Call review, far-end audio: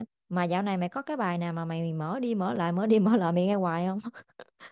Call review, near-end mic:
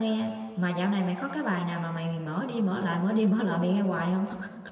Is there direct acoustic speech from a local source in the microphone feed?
No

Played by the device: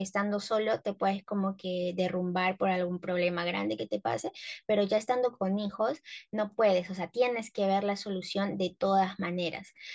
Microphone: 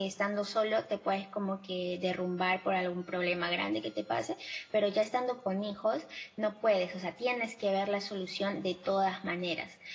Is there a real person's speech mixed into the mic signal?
No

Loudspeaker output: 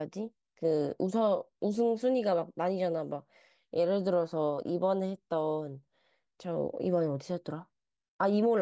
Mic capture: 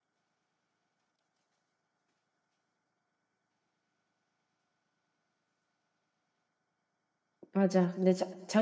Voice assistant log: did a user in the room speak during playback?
Yes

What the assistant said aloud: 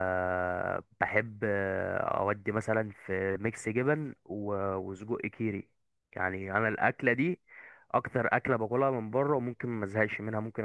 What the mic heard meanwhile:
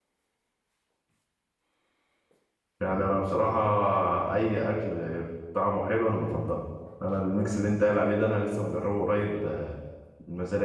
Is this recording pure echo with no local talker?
No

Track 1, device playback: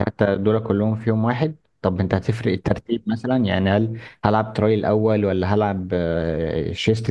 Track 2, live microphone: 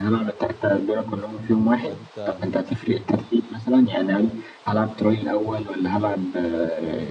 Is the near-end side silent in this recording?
No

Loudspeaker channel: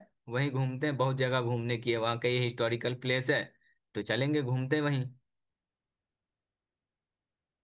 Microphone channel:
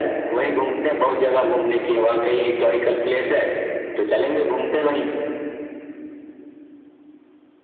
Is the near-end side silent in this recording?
Yes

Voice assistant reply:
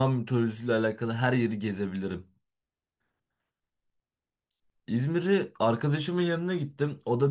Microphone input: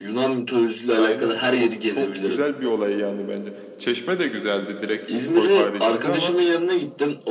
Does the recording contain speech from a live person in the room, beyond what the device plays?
Yes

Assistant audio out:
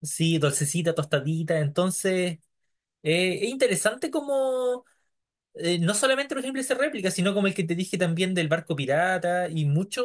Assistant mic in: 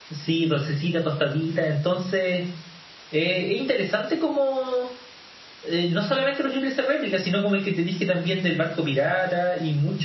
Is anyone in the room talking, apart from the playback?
No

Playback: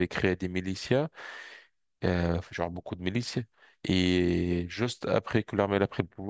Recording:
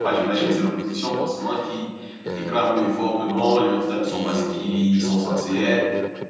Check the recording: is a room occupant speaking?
Yes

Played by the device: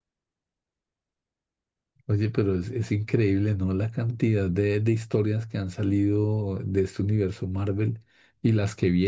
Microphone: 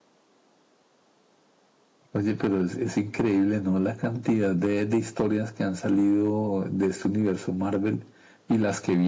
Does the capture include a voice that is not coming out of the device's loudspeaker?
No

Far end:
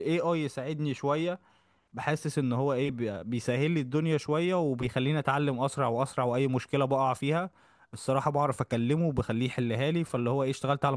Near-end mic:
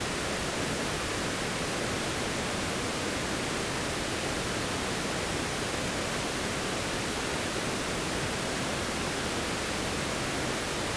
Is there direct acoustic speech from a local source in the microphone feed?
No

